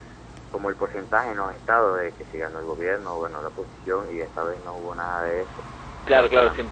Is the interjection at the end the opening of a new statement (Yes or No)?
Yes